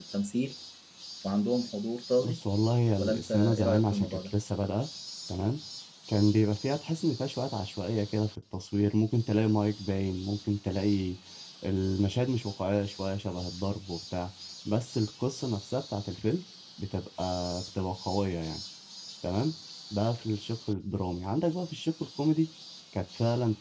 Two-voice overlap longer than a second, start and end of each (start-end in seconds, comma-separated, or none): 3.0-4.3